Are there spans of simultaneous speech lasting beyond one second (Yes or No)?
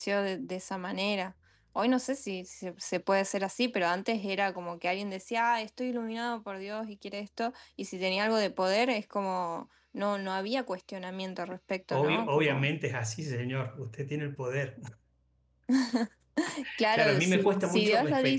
Yes